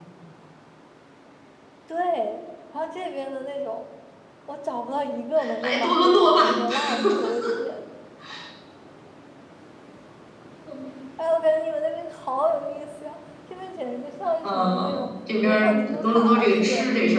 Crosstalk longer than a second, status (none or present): present